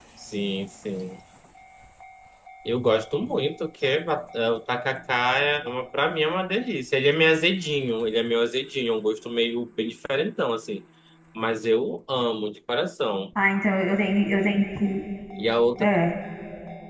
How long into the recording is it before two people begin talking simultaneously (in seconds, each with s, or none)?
none